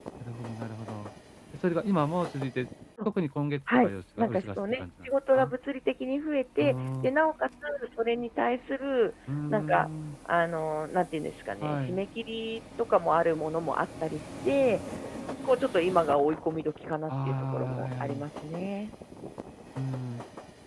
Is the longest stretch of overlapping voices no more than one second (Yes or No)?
No